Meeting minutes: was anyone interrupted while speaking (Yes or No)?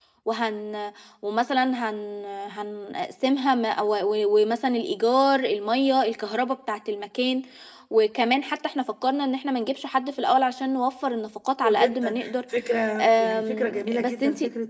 Yes